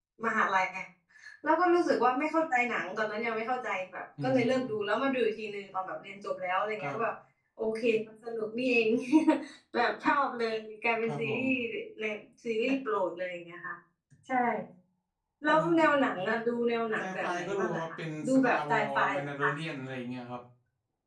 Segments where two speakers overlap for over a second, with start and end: 17.0-19.5

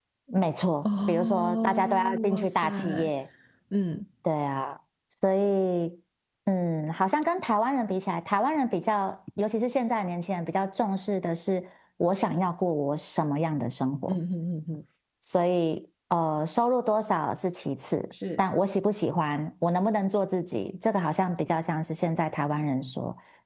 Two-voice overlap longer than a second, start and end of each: 1.1-3.1

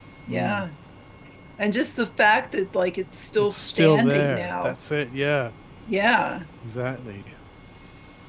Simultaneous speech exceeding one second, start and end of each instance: 3.4-4.7

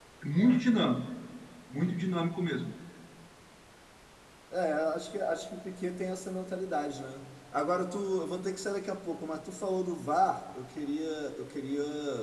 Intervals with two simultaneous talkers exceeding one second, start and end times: none

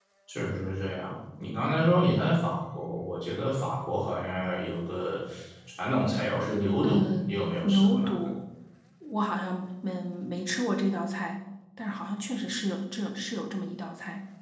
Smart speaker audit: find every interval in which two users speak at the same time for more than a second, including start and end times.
6.8-8.1

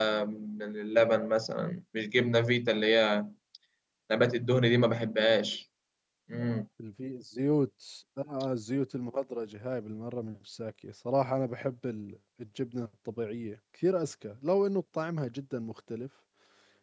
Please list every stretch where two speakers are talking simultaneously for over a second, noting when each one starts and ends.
none

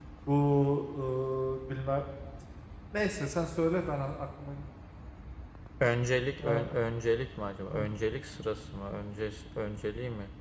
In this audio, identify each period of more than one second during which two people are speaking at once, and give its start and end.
none

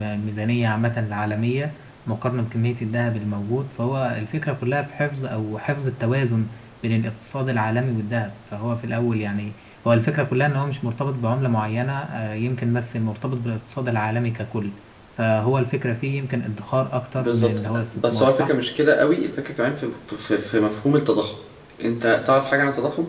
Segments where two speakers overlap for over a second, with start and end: 17.2-18.5

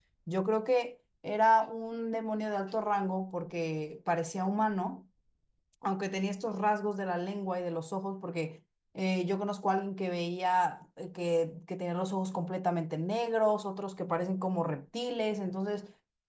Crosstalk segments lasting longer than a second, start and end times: none

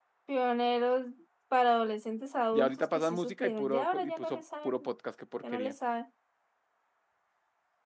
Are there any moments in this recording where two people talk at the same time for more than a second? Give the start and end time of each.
2.5-4.7

